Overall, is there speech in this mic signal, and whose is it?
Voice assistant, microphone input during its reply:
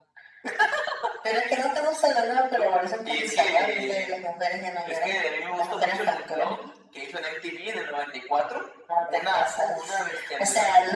echo only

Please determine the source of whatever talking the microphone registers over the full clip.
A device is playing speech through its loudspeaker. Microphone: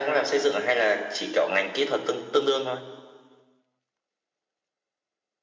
echo only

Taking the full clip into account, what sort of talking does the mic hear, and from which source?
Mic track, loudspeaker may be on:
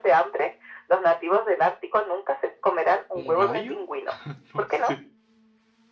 both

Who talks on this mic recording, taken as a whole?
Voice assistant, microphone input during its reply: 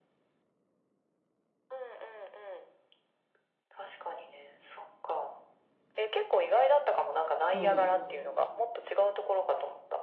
both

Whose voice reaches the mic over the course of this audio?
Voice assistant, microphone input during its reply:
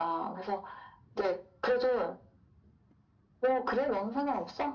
echo only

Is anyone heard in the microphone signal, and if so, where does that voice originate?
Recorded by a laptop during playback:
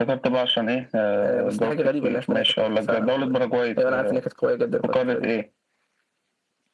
echo only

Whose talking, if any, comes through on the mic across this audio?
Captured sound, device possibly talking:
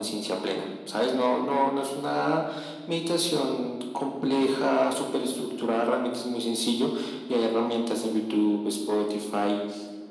echo only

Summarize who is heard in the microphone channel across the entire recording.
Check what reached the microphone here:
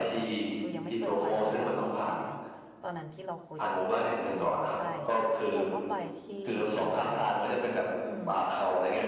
both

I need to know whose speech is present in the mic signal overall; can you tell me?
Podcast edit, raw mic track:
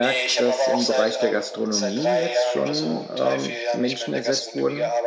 both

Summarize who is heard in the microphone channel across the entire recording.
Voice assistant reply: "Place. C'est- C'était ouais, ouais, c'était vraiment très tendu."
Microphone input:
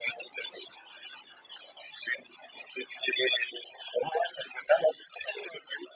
echo only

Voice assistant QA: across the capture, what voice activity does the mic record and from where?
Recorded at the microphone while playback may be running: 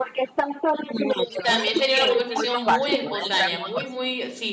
both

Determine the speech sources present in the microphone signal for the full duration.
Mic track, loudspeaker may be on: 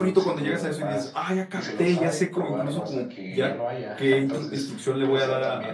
both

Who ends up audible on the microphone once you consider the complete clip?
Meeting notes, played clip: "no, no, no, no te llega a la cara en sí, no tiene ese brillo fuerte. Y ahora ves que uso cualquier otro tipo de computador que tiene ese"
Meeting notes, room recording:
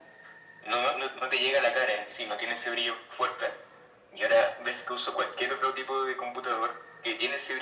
echo only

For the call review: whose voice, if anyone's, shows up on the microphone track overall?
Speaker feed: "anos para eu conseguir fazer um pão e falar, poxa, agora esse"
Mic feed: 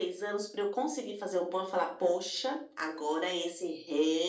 echo only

